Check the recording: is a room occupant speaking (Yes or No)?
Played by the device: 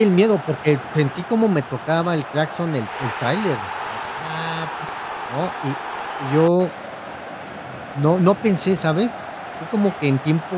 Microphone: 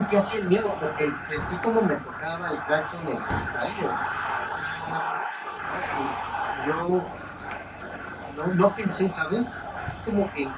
No